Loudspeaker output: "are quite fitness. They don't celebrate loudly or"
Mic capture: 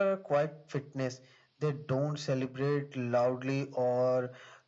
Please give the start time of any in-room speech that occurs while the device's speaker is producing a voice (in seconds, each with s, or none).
none